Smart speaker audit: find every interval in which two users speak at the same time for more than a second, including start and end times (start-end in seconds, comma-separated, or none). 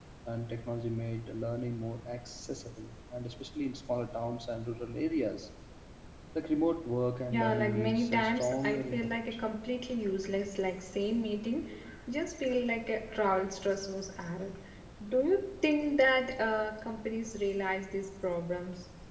7.3-9.3